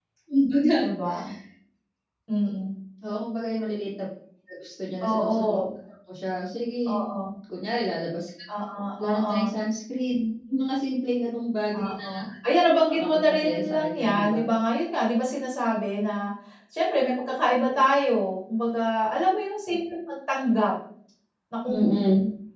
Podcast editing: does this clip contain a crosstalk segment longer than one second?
Yes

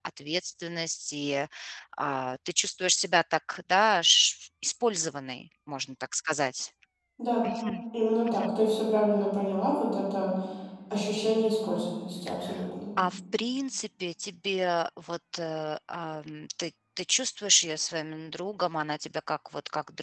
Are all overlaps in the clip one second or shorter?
Yes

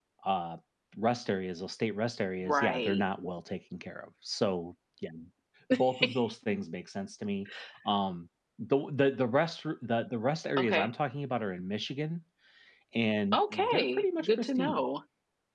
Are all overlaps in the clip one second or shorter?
No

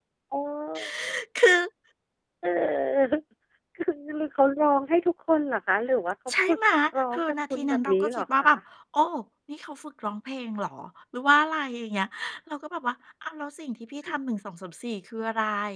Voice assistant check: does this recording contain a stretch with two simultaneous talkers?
Yes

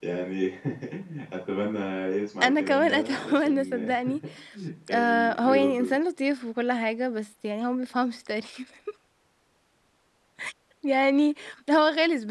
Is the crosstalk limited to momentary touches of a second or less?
No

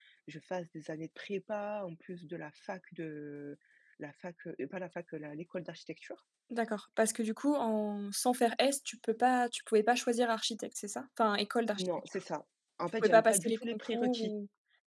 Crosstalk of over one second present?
Yes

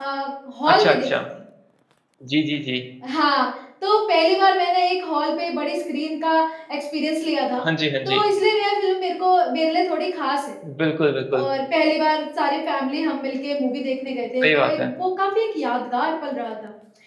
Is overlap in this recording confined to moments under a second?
Yes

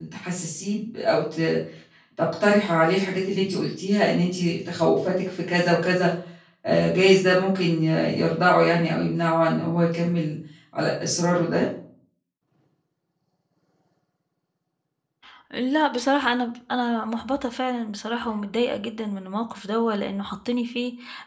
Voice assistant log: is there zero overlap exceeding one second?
Yes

